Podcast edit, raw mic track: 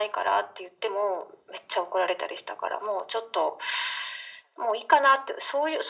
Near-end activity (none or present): none